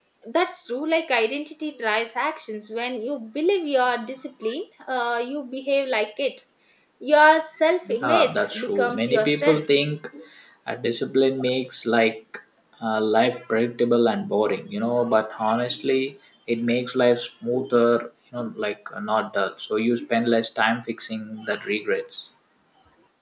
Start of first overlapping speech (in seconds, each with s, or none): 7.9 s